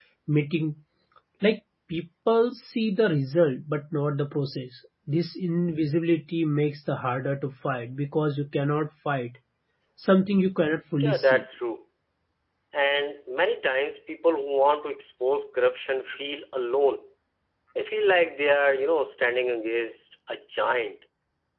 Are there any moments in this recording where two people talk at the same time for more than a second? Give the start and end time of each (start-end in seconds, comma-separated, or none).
none